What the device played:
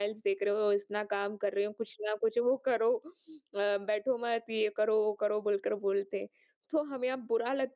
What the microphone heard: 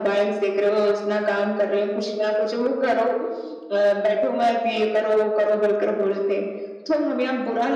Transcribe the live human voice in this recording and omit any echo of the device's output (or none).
none